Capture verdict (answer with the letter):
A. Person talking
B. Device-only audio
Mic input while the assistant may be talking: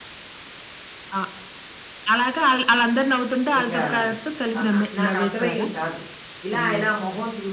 A